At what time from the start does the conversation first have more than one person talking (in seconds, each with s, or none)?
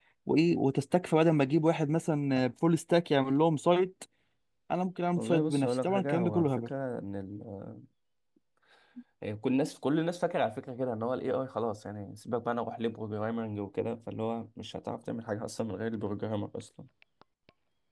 5.2 s